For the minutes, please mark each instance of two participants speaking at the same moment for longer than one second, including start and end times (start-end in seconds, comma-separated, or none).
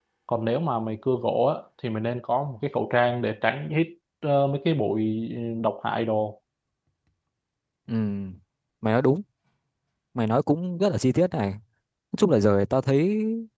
none